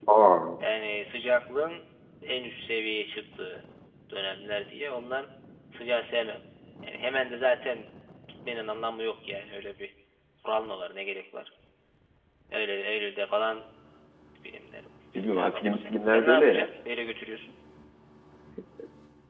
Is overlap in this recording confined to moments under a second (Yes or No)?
No